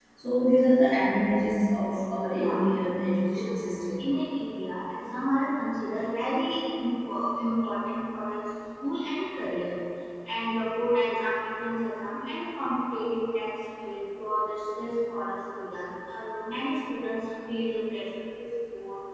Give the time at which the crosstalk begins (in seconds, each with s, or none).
2.3 s